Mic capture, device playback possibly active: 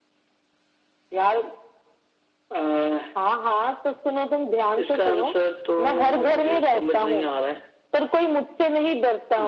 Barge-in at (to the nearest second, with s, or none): none